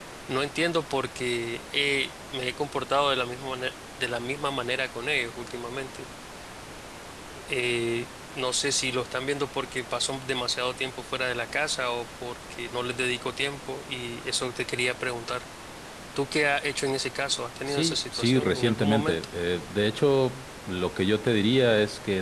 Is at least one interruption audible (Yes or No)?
Yes